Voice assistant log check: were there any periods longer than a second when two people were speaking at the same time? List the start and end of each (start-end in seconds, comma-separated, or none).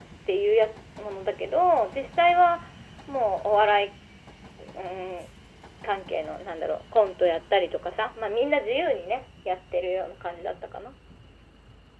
none